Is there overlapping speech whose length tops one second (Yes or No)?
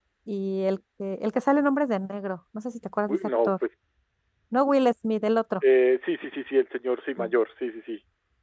No